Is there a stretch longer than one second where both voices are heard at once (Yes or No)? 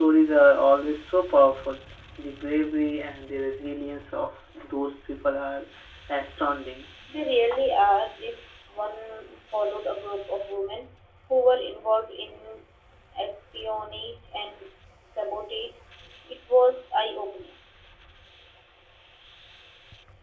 No